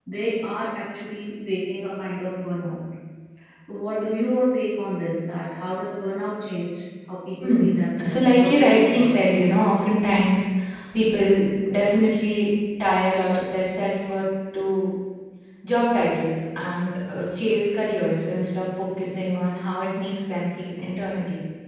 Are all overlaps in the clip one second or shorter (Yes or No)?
No